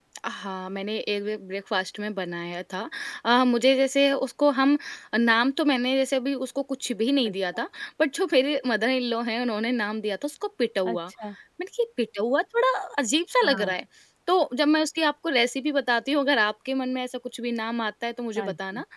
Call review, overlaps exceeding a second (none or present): none